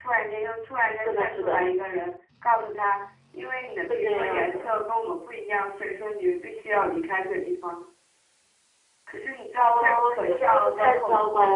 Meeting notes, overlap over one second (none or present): present